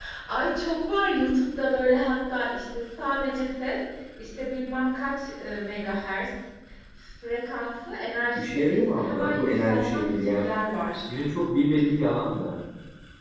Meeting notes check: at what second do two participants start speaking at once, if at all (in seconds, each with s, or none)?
8.3 s